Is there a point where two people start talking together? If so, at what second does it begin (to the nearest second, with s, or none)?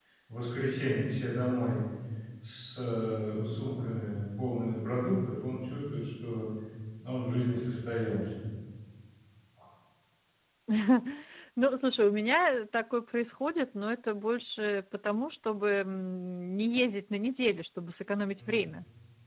none